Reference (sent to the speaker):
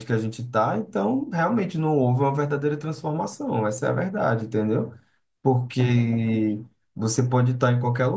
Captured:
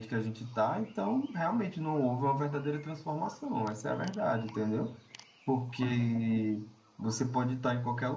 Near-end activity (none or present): none